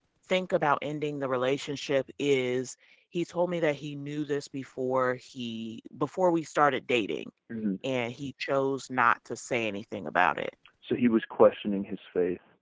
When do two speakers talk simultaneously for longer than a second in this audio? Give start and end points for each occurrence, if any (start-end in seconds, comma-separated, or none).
none